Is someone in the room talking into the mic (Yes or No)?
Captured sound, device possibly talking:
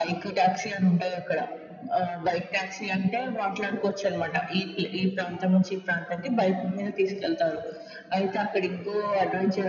No